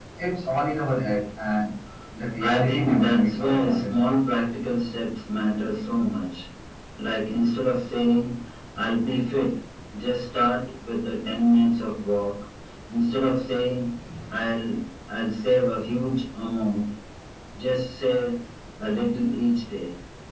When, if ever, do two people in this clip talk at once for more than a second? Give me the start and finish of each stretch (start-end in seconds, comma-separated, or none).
2.4-4.1